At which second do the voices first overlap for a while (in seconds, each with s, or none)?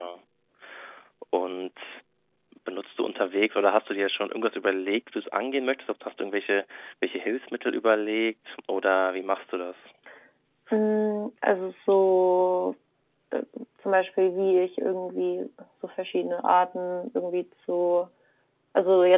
none